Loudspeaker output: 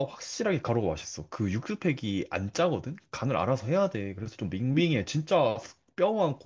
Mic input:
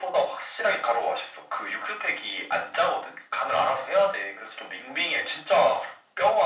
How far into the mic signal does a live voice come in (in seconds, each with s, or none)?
none